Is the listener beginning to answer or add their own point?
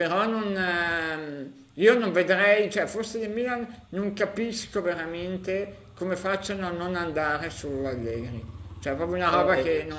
Yes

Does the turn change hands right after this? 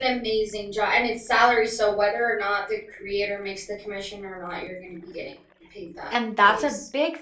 Yes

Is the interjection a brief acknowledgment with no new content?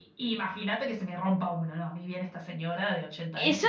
No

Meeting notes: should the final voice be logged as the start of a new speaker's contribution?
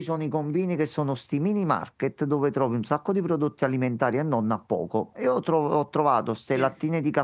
No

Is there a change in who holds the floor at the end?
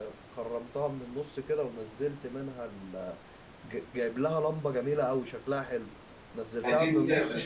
Yes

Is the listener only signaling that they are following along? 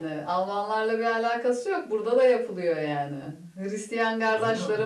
Yes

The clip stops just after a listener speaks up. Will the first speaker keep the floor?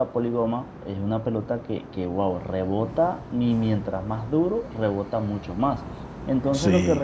Yes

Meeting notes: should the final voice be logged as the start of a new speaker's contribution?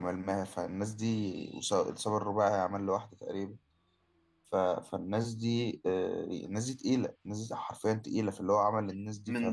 Yes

